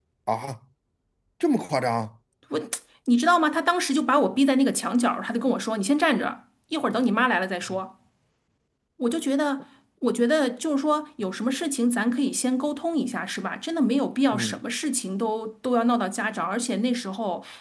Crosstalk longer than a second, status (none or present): none